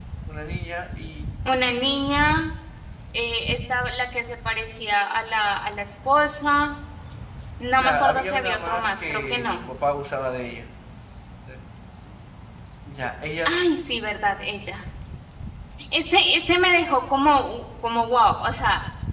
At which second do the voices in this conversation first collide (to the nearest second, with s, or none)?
8 s